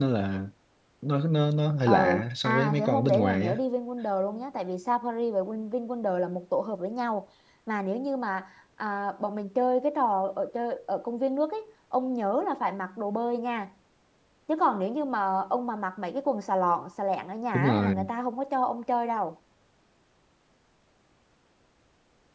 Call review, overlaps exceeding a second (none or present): present